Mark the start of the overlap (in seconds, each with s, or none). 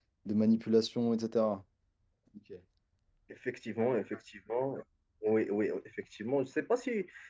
none